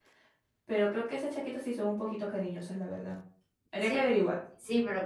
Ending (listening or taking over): taking over